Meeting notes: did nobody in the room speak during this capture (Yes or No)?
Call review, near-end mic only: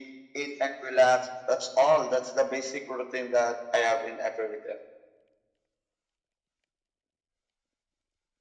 Yes